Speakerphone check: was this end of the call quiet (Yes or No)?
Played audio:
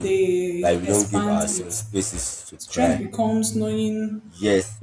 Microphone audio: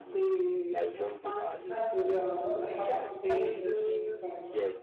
No